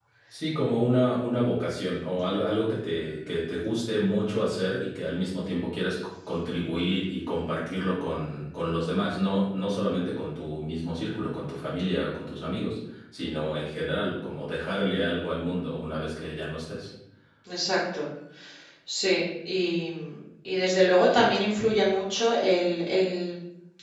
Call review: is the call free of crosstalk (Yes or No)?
Yes